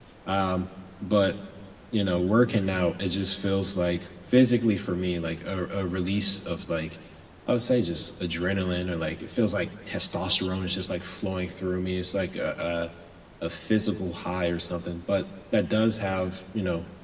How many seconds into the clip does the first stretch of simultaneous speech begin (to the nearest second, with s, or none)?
none